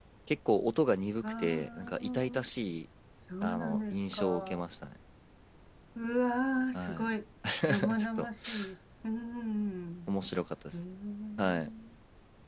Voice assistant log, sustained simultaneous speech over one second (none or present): present